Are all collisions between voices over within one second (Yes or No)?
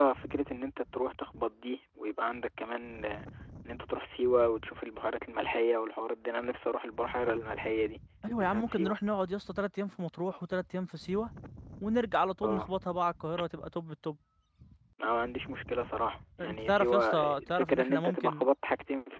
No